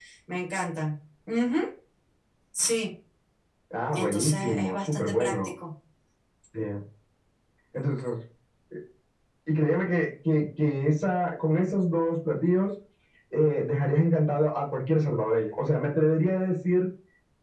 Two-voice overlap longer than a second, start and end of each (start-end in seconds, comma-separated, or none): 3.9-5.3